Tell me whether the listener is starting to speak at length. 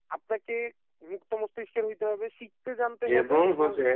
Yes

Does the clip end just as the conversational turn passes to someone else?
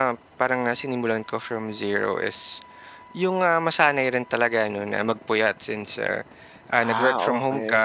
No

